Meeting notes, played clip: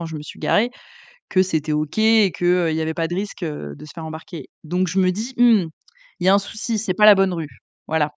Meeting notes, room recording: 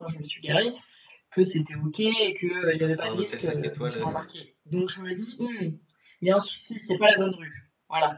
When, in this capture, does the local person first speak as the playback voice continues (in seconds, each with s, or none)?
2.7 s